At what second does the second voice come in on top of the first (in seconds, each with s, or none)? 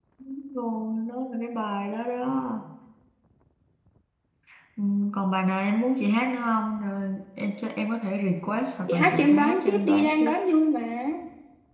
8.9 s